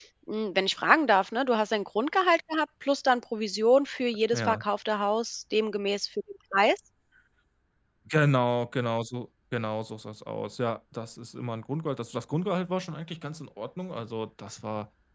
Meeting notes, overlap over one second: none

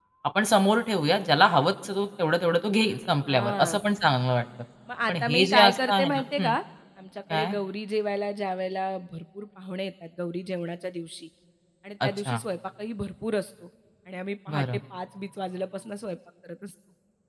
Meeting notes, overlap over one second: present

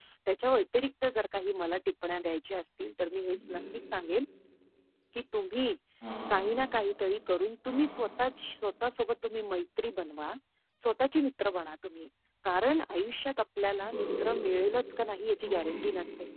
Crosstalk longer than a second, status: none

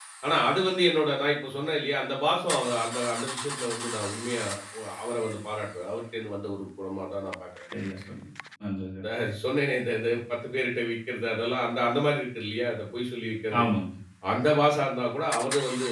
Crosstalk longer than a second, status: none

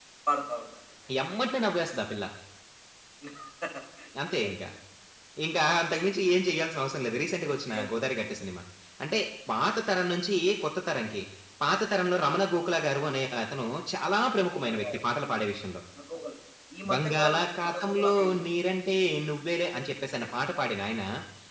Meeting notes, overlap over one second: present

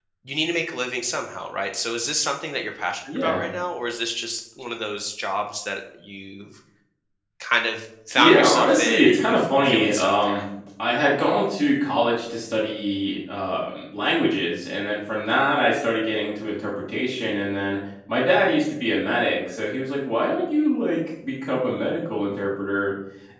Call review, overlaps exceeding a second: present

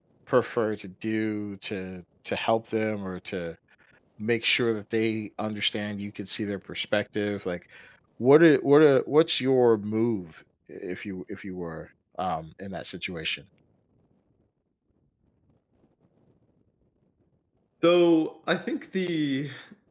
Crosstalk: none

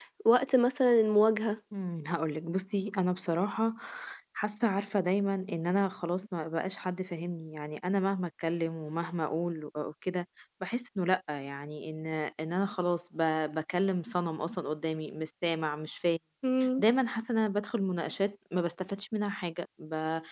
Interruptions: none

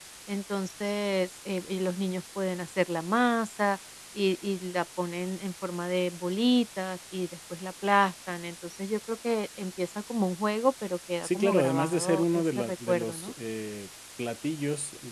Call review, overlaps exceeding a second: present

